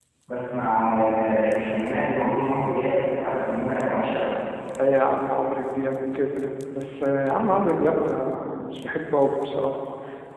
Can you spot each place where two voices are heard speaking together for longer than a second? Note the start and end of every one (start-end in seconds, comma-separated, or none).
none